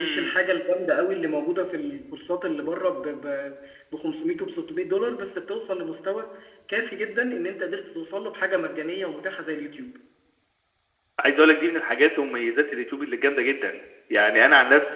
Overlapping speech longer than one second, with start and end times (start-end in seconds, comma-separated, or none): none